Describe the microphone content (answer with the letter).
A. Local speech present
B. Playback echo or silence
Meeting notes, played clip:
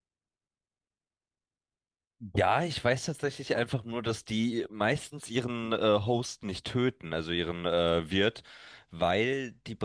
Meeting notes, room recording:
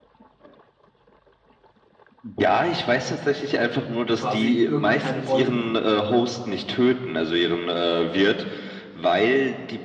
A